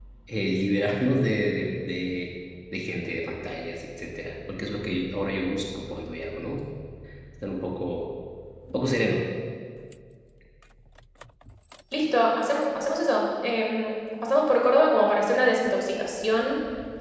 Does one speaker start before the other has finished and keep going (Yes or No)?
No